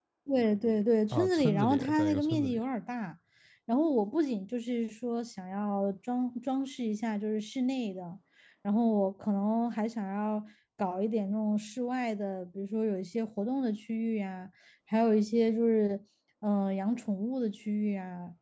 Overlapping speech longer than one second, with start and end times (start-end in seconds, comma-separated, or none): 1.1-2.6